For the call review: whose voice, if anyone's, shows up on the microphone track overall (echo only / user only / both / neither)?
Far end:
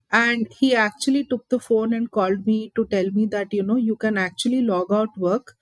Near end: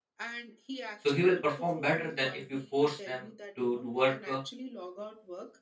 both